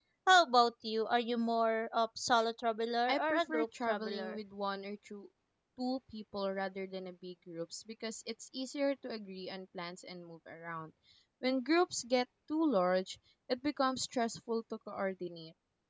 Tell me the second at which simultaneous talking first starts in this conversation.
3.1 s

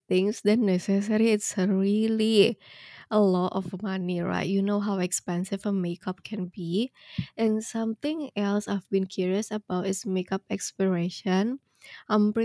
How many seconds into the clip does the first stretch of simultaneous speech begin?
none

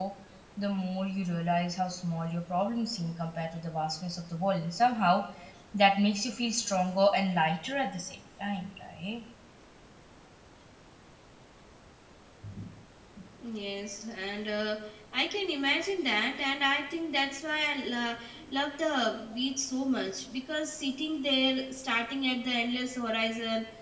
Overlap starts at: none

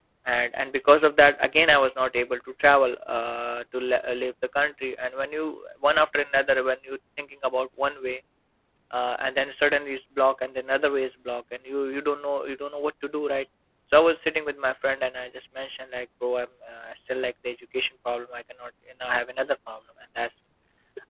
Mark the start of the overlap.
none

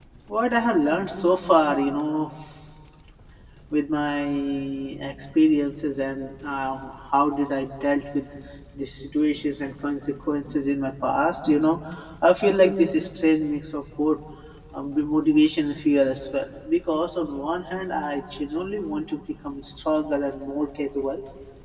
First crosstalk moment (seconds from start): none

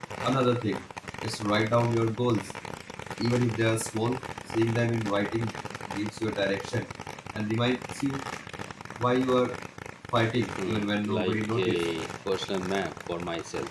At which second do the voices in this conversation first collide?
10.7 s

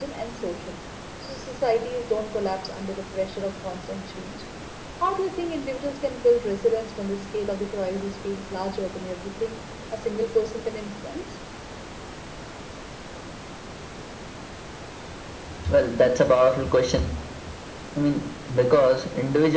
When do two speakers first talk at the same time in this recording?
none

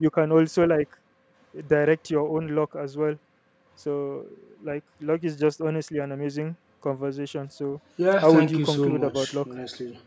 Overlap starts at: 8.2 s

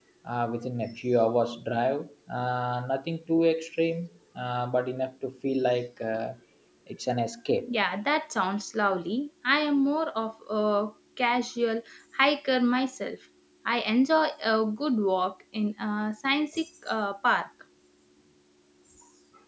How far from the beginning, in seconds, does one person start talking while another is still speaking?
none

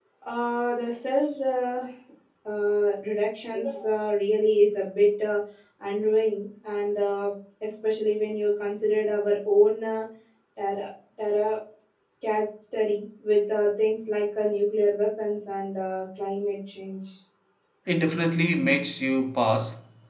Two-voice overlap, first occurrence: none

